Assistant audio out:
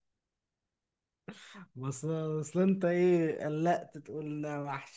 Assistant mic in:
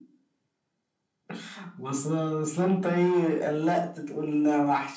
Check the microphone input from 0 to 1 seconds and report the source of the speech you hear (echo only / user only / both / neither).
neither